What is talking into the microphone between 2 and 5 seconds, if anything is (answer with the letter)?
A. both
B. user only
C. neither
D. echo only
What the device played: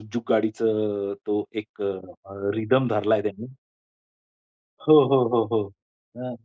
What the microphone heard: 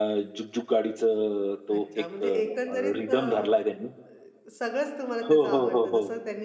A